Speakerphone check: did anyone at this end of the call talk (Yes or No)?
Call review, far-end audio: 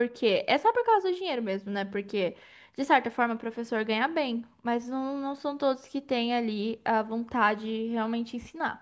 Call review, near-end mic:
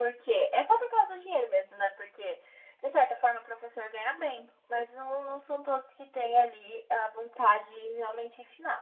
No